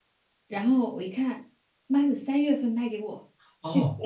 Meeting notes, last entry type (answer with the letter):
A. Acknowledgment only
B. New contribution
B